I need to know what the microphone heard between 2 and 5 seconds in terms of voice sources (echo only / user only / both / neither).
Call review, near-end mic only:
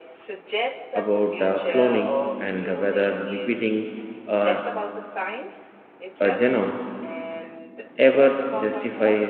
both